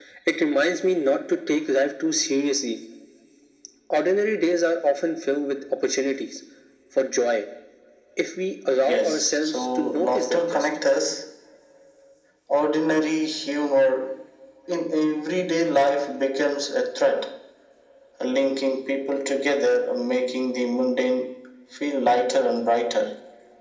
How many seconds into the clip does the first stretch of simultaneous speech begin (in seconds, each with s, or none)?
8.8 s